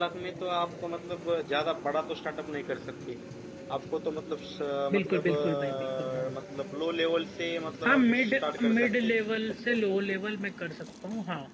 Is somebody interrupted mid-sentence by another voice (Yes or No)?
Yes